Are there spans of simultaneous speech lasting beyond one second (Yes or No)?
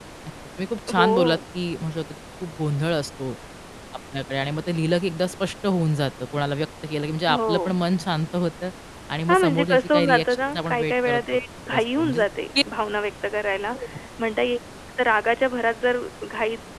Yes